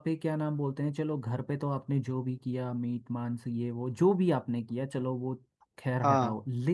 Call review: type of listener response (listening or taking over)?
listening